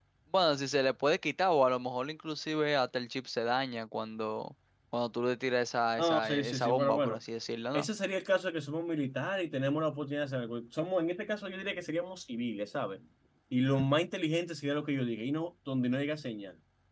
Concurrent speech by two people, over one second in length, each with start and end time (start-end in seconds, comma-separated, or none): 6.0-7.2